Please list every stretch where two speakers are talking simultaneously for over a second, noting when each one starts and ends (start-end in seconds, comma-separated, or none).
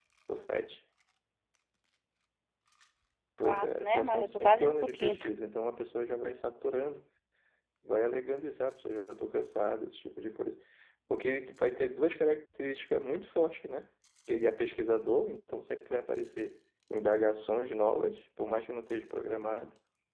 3.4-5.3